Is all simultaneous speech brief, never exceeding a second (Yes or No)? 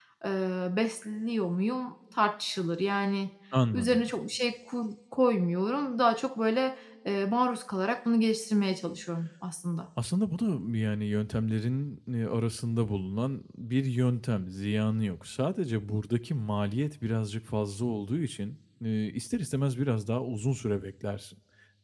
Yes